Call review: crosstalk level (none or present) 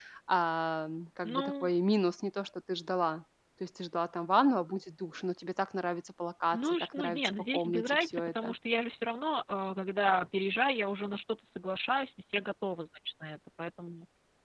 present